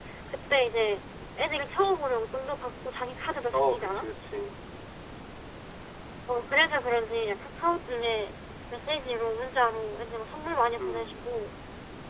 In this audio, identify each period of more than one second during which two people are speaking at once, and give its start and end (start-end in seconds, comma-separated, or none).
none